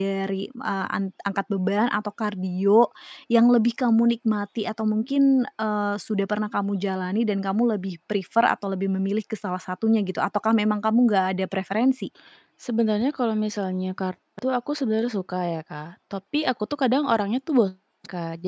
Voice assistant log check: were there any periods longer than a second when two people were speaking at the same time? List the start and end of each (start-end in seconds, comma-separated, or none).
none